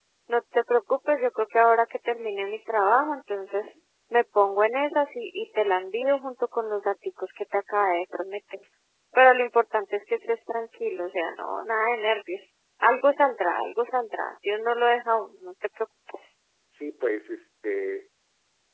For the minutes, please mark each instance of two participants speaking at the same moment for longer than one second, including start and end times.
none

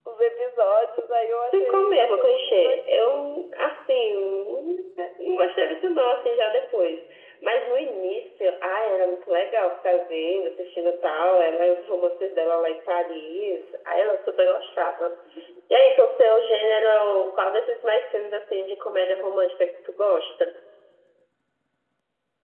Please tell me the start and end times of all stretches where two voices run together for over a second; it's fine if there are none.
1.5-3.2

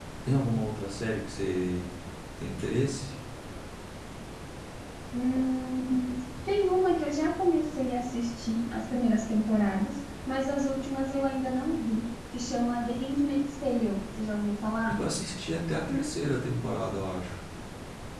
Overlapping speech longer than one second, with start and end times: none

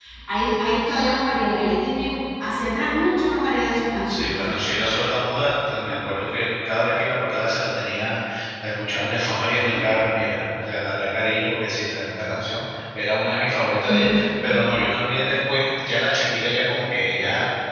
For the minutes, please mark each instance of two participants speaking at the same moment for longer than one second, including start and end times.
none

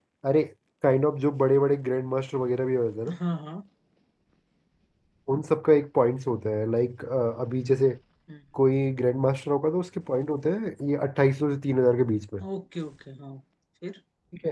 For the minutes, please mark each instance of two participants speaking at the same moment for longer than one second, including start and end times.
none

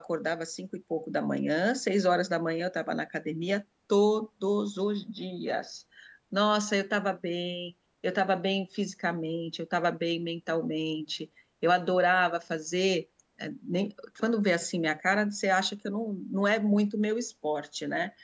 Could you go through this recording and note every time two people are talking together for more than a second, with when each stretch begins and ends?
none

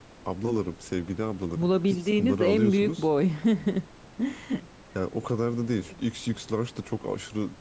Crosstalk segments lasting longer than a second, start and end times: 1.6-3.0

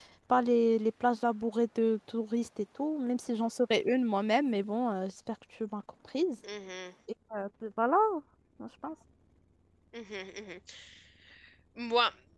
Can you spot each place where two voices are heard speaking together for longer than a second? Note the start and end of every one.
none

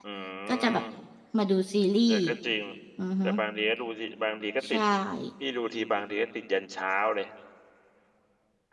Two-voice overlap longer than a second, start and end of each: none

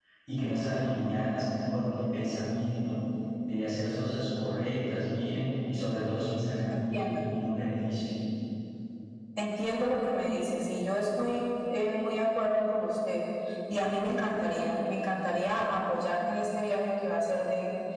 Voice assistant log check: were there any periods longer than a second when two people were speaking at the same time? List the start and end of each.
none

